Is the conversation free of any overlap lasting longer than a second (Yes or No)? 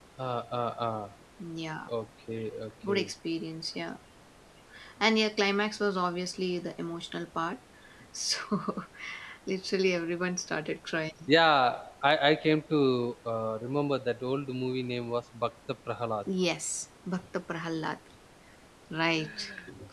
Yes